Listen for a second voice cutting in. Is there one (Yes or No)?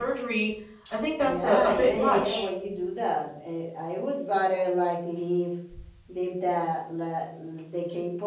Yes